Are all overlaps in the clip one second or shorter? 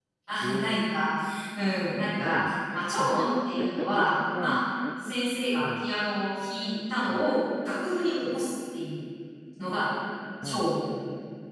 No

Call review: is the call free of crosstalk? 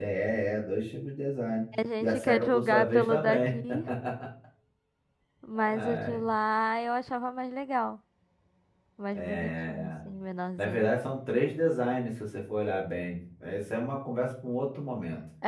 No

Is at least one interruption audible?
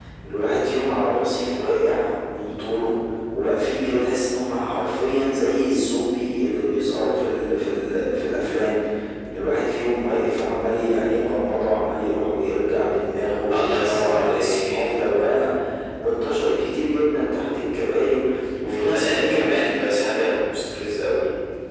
Yes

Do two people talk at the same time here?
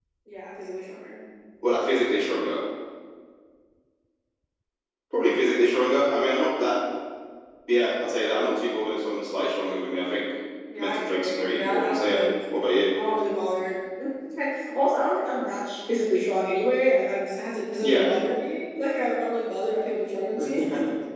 Yes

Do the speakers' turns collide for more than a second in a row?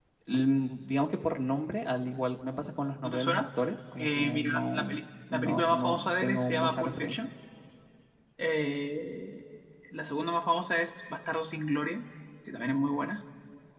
Yes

